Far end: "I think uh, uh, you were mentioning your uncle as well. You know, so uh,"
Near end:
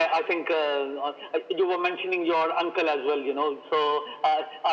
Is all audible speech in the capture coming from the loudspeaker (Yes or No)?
Yes